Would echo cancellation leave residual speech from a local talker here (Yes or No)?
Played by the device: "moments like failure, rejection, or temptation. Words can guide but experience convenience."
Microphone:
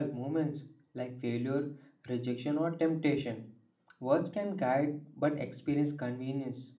No